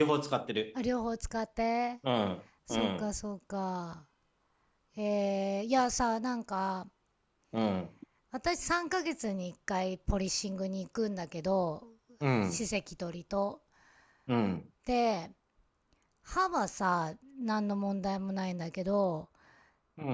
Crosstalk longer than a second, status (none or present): none